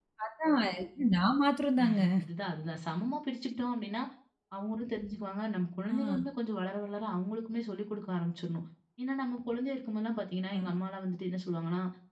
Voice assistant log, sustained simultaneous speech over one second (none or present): none